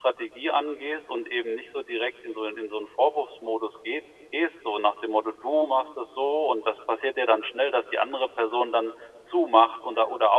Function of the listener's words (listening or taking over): listening